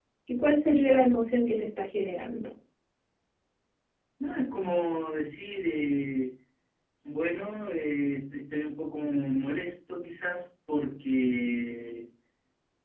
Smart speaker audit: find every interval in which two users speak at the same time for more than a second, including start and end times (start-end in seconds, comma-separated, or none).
none